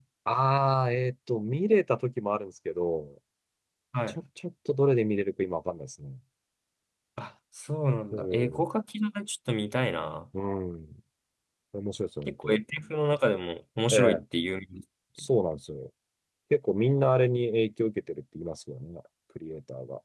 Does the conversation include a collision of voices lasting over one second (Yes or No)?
No